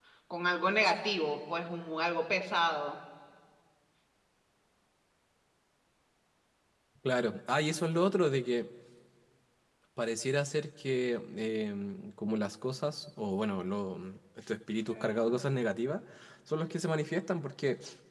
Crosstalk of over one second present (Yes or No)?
No